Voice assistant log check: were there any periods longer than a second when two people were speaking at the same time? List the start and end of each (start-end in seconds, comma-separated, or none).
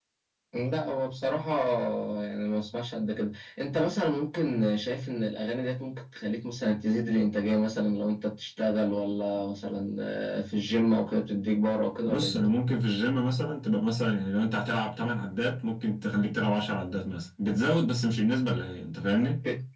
none